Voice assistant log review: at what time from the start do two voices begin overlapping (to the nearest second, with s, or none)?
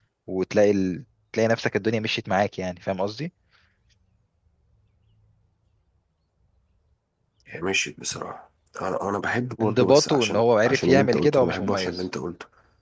10 s